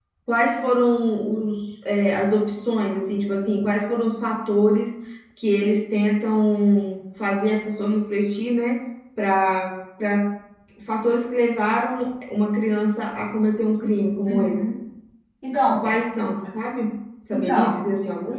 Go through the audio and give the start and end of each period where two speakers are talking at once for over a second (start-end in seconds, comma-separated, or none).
none